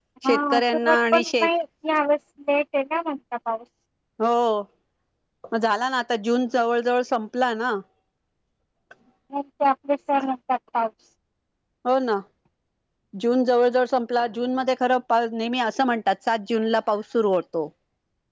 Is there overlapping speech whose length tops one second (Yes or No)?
Yes